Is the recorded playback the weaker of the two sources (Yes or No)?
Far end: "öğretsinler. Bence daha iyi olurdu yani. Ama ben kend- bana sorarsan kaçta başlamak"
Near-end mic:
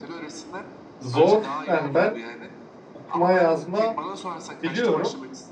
Yes